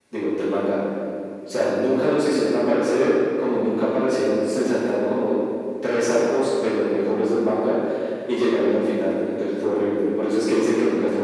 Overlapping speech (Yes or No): No